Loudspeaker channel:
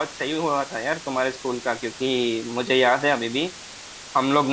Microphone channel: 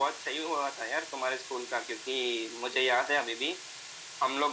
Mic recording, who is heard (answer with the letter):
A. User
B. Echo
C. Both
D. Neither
B